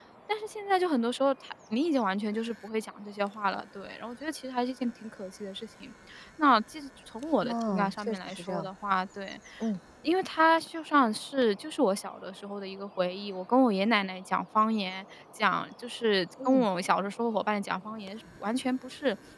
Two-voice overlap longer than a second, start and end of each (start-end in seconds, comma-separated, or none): 7.4-8.7